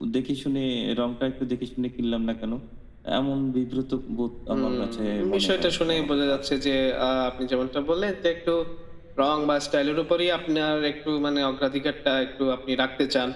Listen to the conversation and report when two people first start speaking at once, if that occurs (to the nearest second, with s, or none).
4 s